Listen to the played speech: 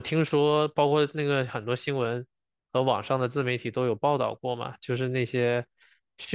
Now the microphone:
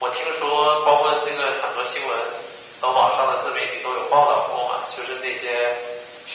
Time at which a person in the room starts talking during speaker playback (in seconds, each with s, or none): none